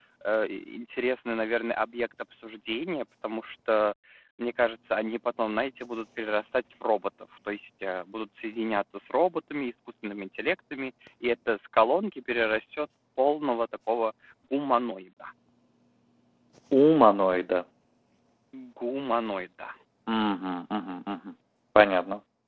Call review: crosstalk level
none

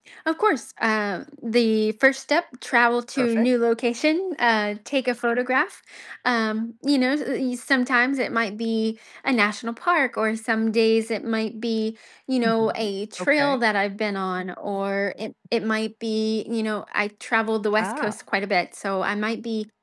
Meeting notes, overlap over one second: none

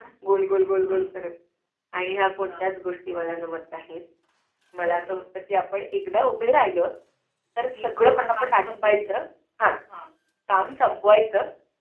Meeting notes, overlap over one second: present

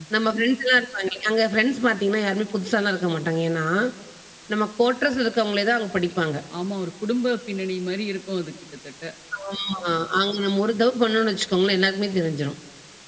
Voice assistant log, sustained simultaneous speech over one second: none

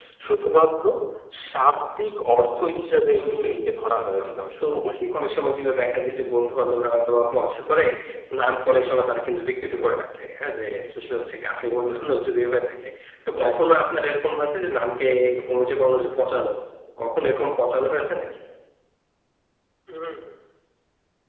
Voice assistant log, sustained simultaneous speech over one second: present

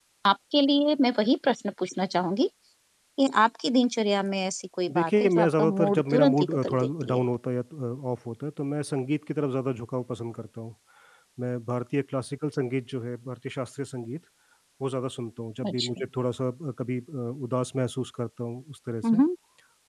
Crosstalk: present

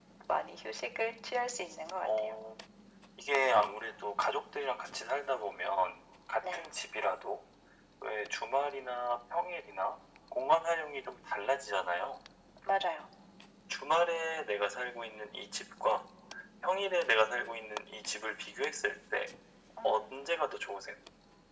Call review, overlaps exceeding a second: none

